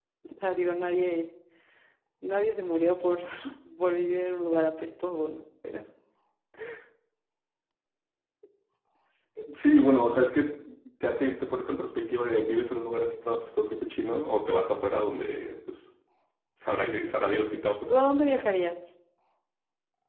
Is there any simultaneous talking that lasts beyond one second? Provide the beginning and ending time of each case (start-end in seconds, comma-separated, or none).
none